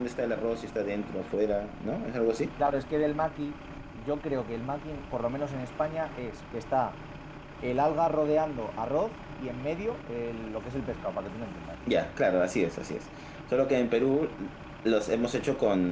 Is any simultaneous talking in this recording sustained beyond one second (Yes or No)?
No